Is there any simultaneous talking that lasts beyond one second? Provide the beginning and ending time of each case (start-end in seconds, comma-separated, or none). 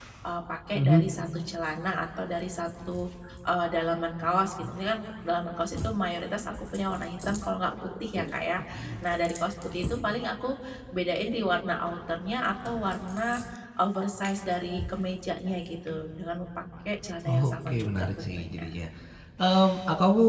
17.2-18.7